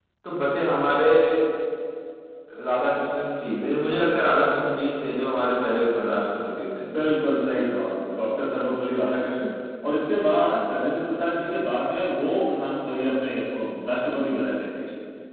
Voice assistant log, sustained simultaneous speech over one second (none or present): none